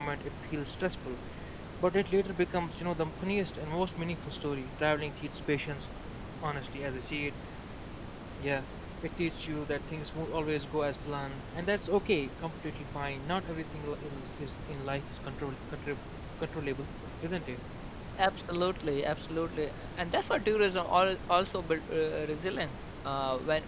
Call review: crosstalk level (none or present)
none